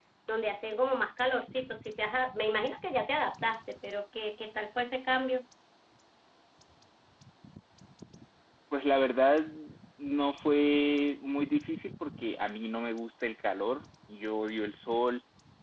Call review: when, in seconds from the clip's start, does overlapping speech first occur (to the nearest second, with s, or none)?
none